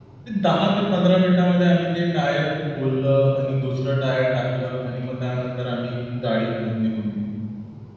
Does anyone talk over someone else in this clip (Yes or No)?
No